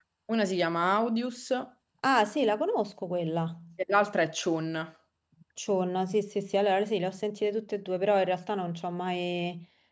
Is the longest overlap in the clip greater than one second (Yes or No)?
No